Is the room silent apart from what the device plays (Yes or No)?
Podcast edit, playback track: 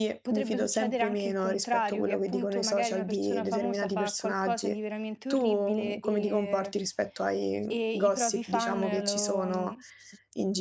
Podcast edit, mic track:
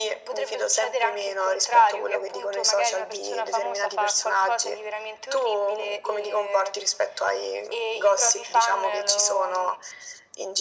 Yes